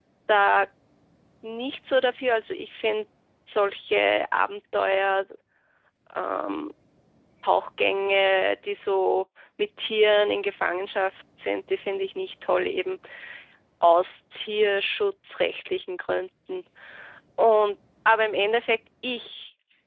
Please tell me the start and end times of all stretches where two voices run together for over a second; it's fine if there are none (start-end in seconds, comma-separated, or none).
none